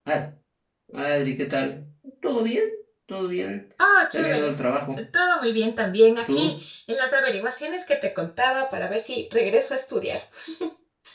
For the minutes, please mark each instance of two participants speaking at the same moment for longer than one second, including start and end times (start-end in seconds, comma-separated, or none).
none